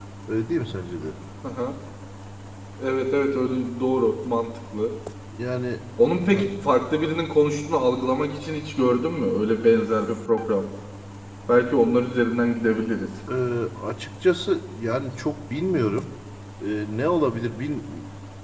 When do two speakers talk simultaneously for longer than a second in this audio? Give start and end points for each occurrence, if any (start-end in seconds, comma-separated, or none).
none